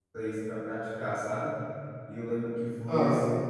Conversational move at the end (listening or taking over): listening